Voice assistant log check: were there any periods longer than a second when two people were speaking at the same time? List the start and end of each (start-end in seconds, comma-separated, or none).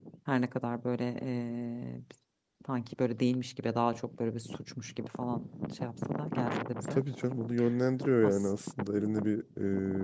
none